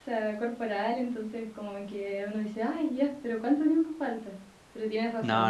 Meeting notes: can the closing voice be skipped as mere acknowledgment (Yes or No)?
Yes